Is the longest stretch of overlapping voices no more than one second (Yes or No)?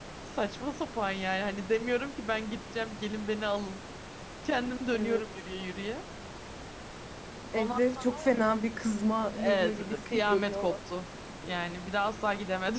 No